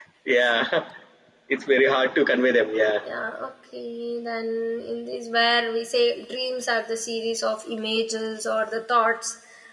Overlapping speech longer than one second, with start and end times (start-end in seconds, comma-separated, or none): none